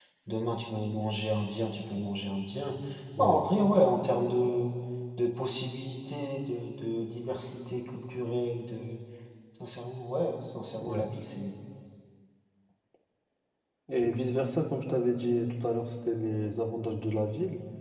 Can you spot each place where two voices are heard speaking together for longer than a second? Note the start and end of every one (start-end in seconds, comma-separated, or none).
none